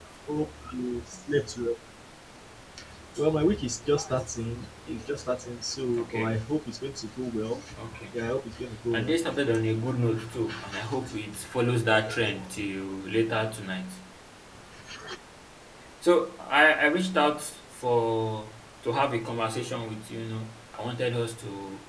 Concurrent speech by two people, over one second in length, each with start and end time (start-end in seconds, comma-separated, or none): none